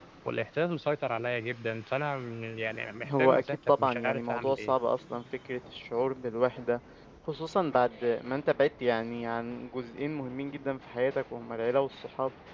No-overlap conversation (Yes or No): No